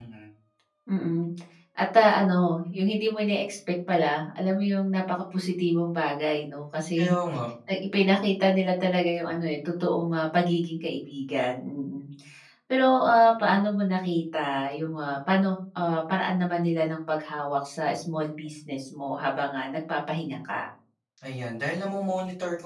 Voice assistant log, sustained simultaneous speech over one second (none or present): none